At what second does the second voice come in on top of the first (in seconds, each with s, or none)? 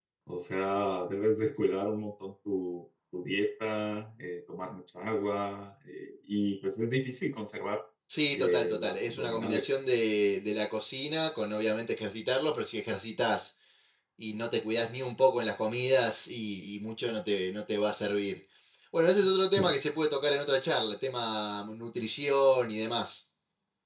8.3 s